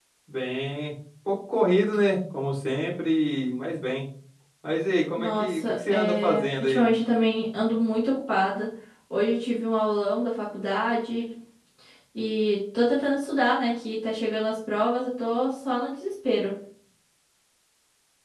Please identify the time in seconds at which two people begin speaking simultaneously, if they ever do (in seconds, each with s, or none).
5.2 s